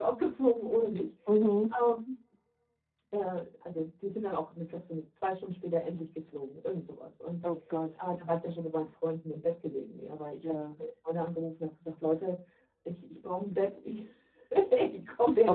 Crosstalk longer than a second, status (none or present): none